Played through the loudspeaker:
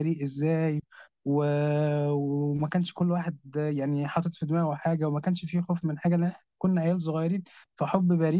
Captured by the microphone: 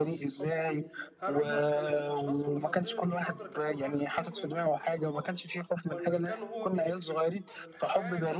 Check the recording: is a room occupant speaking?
Yes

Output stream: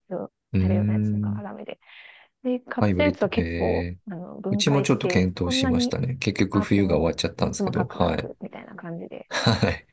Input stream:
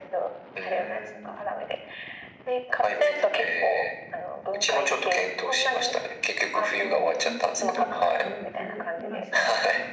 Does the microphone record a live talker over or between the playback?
Yes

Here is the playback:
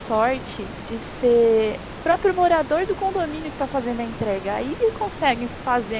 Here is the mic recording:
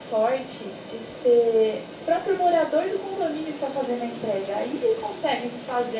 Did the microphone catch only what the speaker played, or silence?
Yes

